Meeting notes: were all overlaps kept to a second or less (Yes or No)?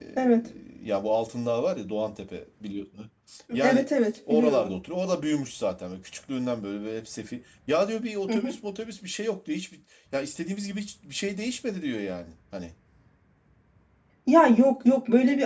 Yes